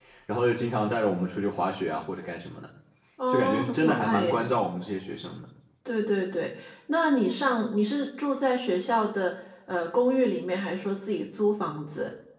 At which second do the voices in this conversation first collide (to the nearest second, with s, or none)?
3 s